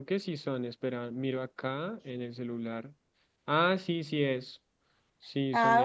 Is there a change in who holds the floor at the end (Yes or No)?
Yes